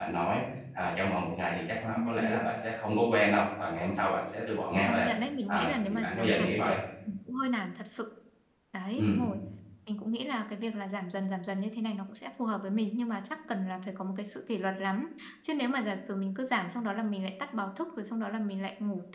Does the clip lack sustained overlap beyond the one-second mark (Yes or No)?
No